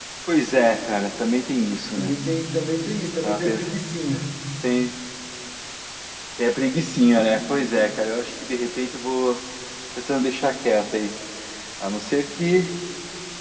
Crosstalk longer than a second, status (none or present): none